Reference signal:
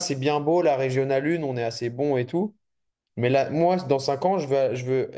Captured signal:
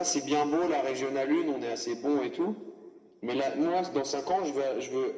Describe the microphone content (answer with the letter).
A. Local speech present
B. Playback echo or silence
B